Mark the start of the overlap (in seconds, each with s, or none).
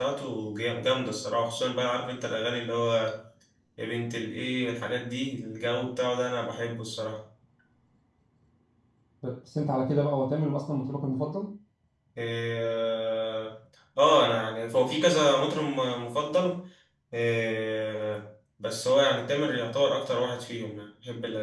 none